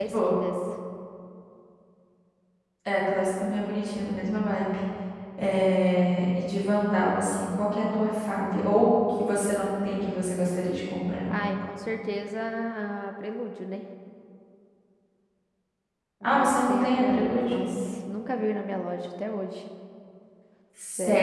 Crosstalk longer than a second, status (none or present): present